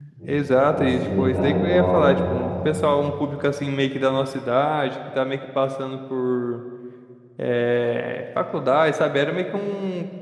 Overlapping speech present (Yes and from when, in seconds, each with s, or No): Yes, from 0.6 s